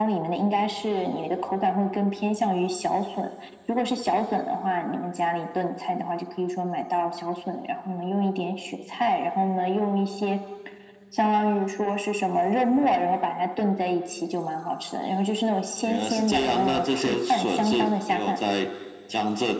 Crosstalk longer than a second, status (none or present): present